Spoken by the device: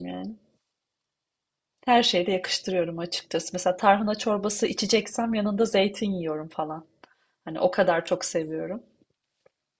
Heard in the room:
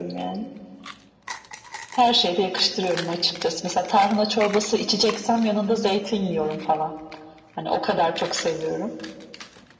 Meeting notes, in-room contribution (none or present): none